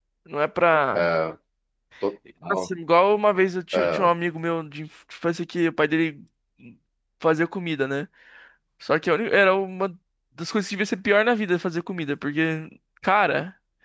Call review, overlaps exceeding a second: none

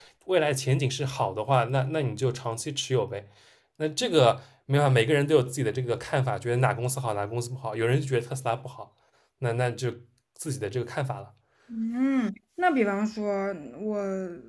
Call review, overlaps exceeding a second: none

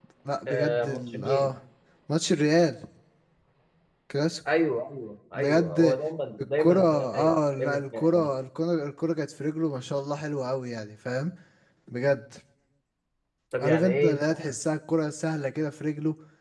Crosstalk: present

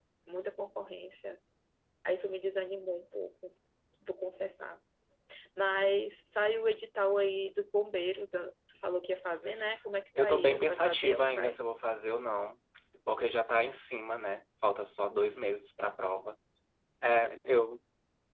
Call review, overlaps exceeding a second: present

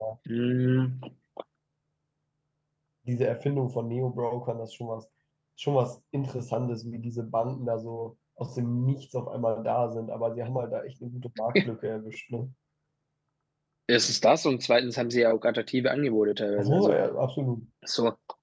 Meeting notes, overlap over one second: none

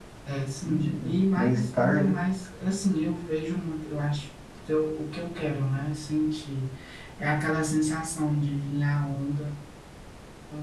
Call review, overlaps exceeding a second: present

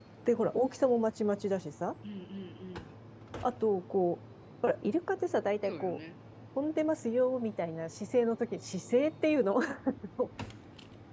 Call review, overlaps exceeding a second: none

